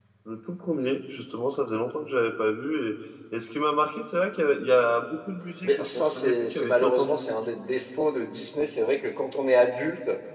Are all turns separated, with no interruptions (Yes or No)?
No